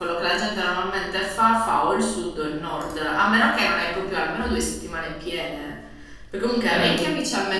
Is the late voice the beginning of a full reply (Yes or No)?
No